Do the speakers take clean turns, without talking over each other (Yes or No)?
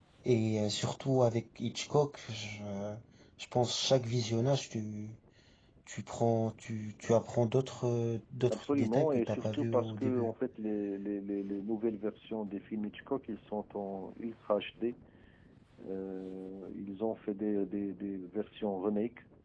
No